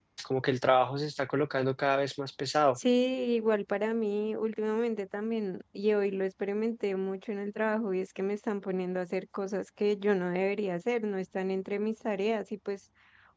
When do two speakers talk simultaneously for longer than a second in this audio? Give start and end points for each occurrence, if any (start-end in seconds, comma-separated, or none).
none